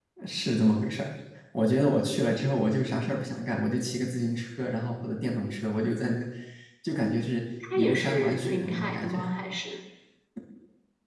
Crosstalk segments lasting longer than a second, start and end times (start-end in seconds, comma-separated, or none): 7.7-9.2